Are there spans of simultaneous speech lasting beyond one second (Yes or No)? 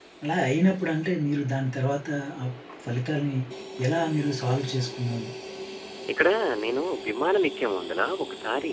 No